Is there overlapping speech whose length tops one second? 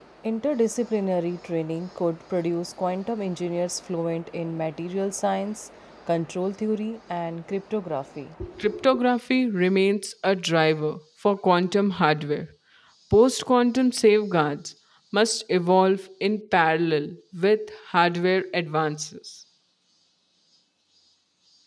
No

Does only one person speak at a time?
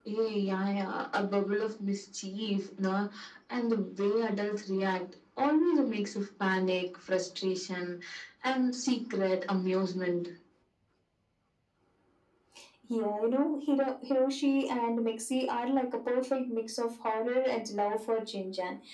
Yes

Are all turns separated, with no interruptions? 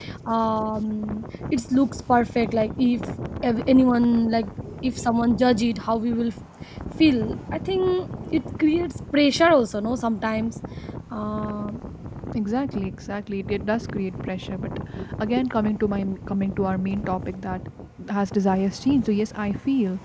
Yes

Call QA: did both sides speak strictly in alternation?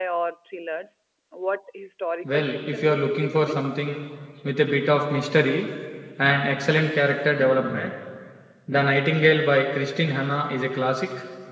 No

